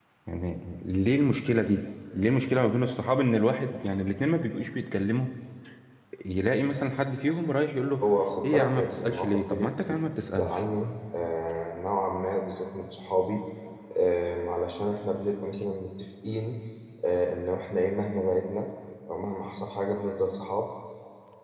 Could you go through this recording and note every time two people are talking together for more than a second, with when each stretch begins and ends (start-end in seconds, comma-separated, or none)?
8.4-10.6